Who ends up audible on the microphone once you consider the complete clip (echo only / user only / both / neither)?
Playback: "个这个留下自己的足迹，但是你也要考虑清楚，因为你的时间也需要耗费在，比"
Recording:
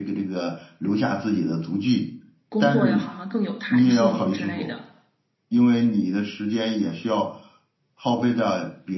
both